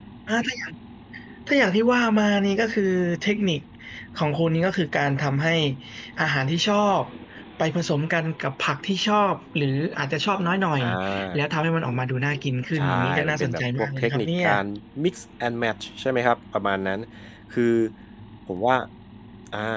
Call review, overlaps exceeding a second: present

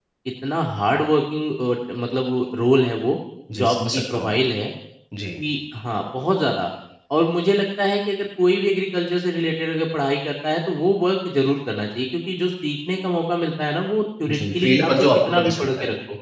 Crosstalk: present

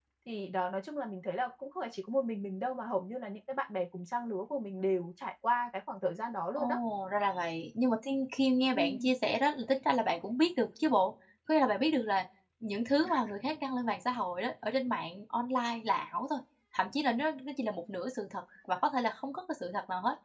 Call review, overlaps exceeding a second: none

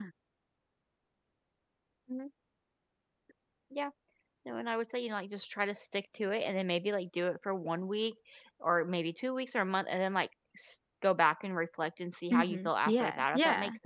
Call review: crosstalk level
present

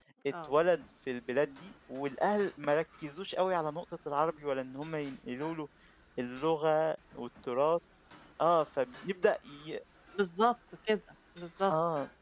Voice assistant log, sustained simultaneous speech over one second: none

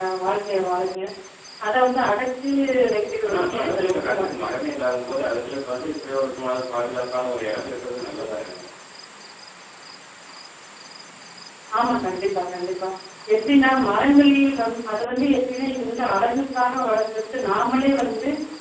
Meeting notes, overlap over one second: present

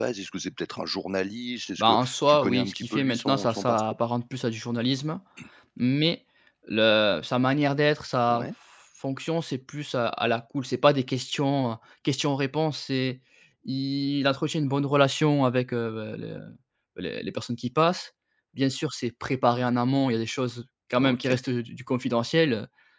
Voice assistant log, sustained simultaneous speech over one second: present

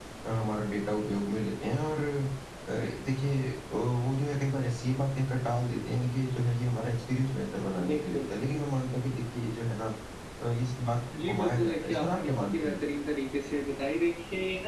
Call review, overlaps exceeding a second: present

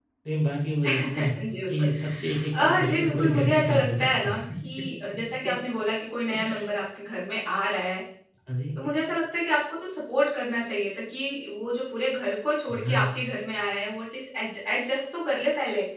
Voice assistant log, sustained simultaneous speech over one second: present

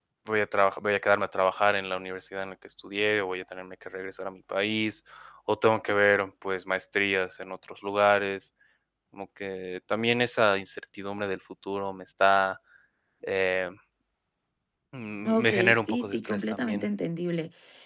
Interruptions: present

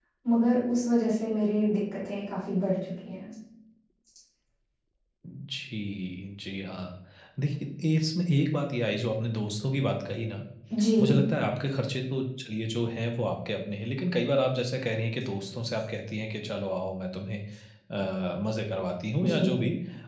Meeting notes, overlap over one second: none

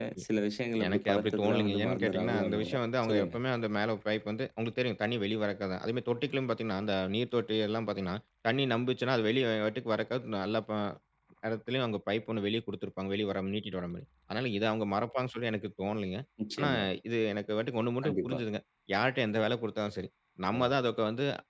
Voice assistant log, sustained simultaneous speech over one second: present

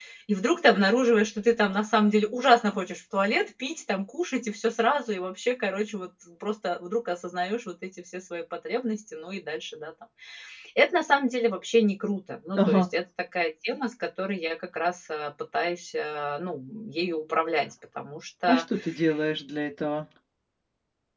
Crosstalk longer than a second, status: none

